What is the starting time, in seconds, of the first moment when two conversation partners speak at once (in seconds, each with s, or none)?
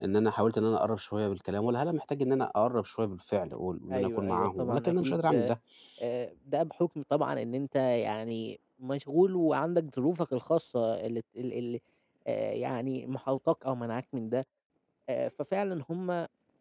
3.9 s